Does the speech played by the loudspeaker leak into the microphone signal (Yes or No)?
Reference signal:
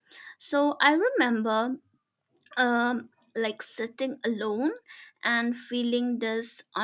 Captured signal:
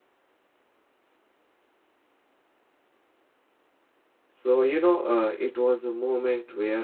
No